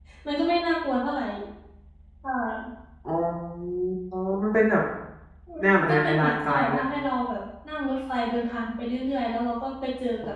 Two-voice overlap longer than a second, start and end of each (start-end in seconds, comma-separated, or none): 5.6-6.8